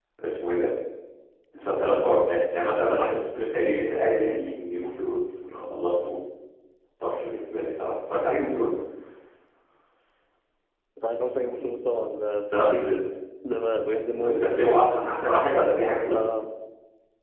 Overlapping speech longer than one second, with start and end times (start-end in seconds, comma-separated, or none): none